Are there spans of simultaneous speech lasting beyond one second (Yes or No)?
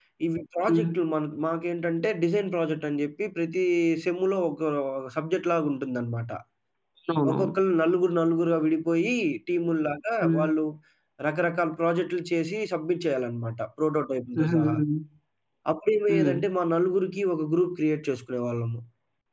No